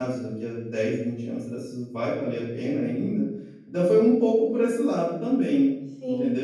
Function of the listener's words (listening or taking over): taking over